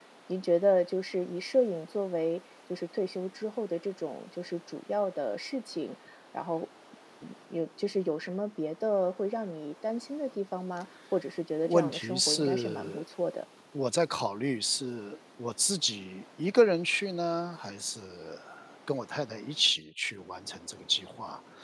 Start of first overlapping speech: 11.6 s

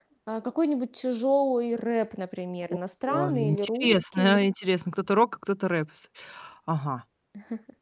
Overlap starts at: 3.1 s

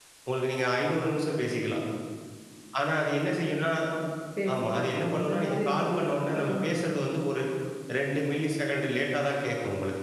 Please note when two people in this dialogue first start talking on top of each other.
4.5 s

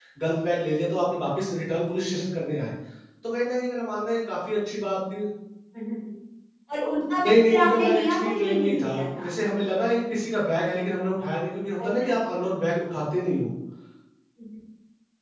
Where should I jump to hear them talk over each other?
7.2 s

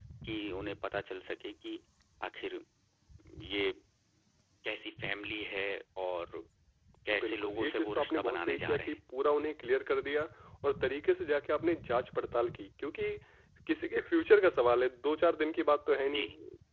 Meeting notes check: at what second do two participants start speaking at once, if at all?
7.1 s

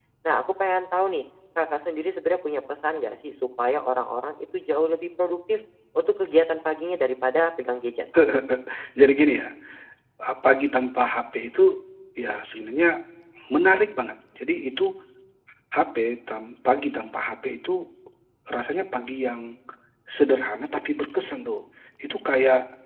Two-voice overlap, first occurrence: none

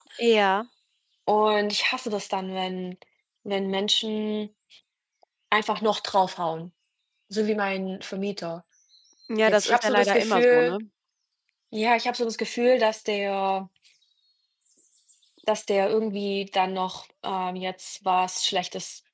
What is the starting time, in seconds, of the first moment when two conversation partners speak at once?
9.5 s

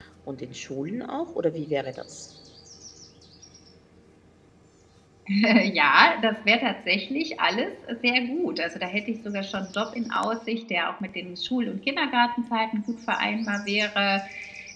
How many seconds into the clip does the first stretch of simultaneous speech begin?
none

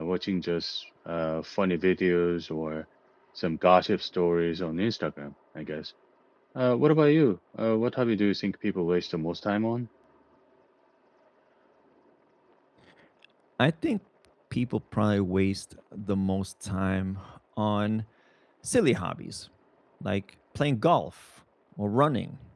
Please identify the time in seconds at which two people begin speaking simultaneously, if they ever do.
none

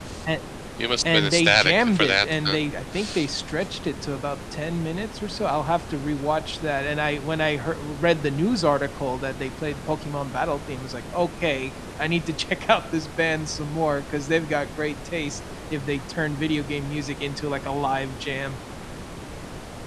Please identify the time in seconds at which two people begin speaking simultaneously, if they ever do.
1.1 s

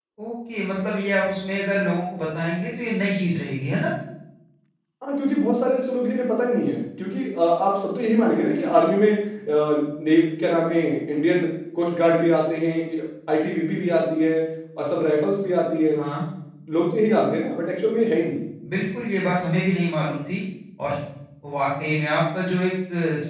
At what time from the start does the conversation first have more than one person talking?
none

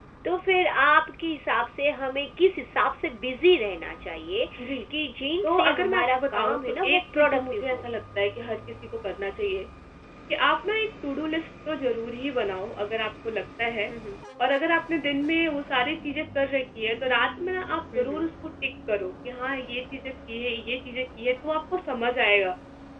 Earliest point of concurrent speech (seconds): 5.4 s

